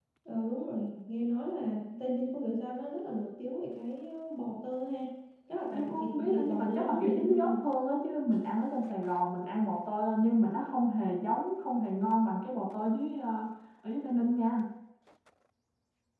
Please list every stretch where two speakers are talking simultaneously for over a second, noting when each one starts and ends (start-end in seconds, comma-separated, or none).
5.7-7.5